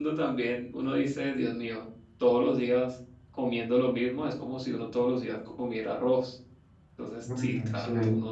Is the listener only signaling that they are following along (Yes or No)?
Yes